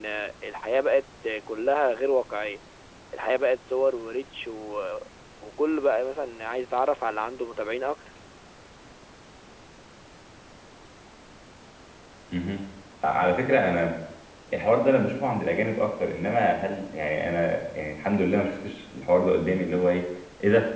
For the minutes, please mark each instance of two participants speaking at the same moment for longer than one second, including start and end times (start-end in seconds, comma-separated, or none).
none